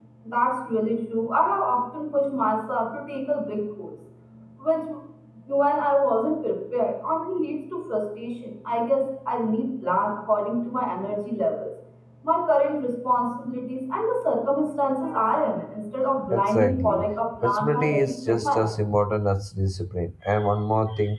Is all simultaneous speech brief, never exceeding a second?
No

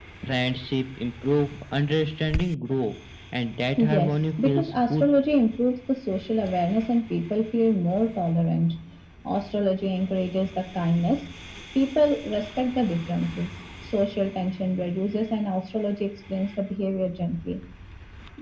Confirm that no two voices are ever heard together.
No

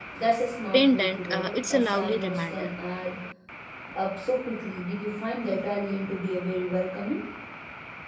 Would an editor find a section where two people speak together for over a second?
Yes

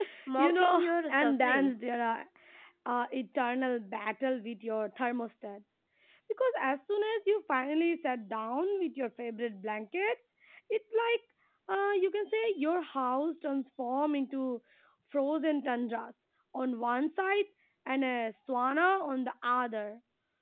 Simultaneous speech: Yes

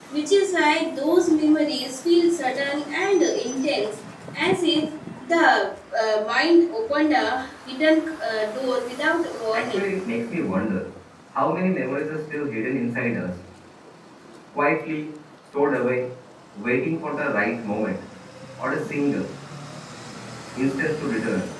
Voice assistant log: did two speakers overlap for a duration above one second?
No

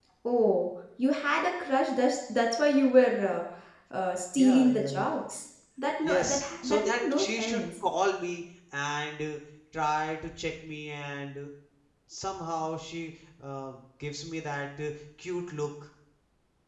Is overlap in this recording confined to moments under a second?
No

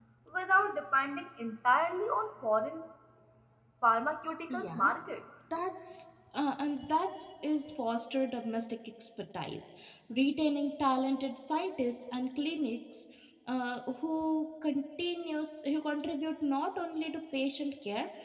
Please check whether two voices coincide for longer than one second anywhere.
No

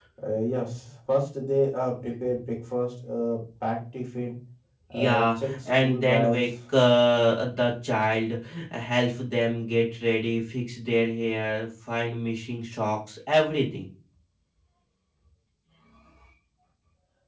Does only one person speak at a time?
No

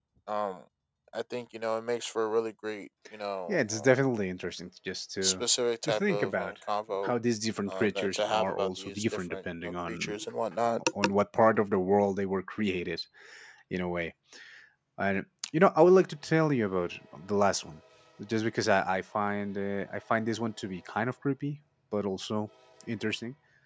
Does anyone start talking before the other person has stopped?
Yes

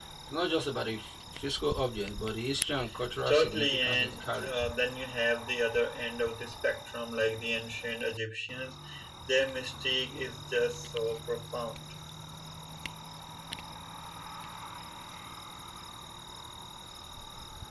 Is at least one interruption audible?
Yes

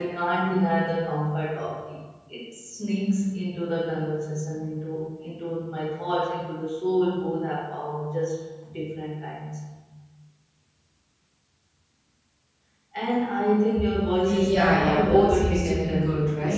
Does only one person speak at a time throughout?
No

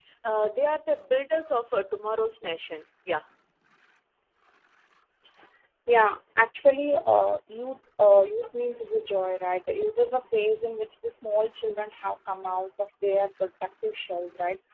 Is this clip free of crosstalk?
Yes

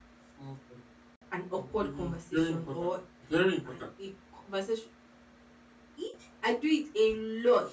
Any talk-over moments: Yes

